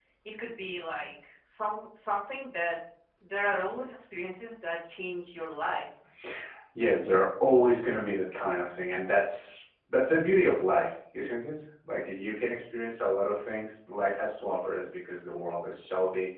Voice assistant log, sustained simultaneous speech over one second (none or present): none